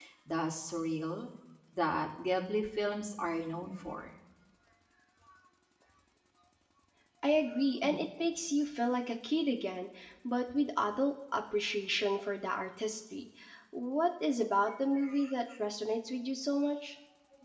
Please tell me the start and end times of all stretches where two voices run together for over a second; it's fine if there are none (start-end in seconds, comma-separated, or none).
none